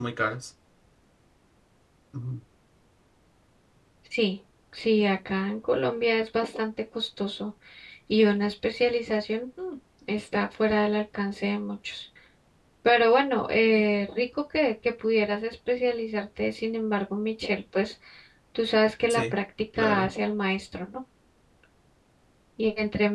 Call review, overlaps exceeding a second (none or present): none